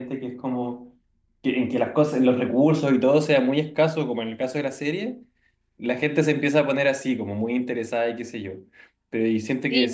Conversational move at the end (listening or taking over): taking over